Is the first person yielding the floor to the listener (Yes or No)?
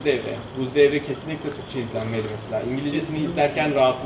Yes